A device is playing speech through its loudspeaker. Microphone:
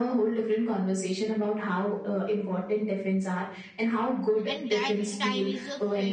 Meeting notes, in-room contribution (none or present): present